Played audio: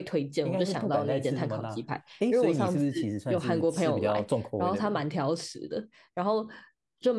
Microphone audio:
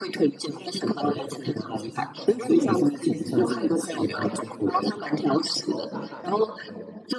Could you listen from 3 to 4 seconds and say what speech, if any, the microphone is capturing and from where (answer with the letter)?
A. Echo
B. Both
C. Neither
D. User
B